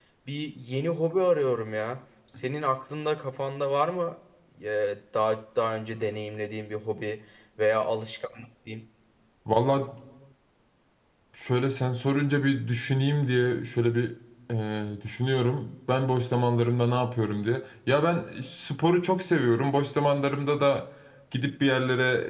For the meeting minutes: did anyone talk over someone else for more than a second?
No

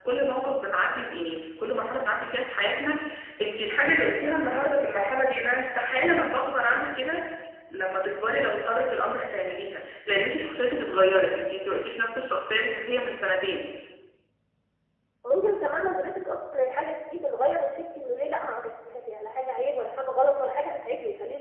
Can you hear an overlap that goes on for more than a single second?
No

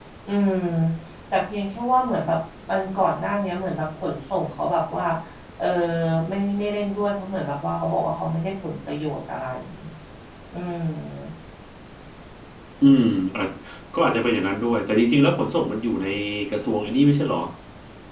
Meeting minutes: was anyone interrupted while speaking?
No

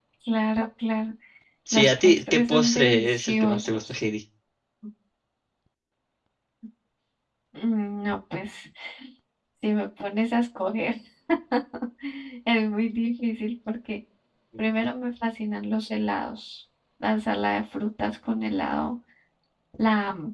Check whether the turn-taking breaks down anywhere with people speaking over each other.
Yes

